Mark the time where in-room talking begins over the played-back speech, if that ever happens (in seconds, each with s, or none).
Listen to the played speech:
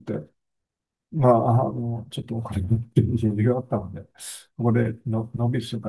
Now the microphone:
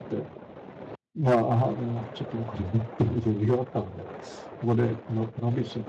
none